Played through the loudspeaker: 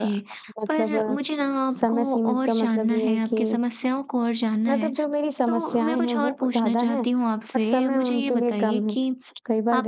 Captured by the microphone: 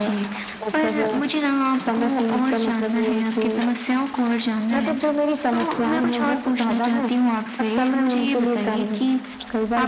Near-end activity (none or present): none